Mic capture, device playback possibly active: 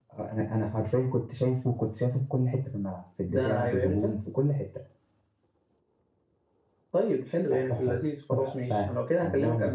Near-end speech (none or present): none